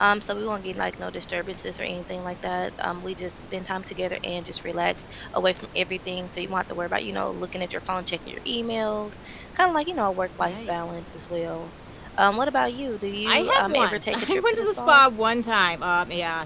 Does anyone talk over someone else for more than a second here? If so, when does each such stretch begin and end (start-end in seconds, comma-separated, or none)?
13.2-15.0